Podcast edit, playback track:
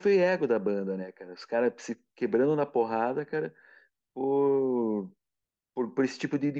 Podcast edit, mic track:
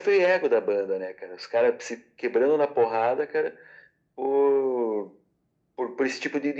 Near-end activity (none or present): none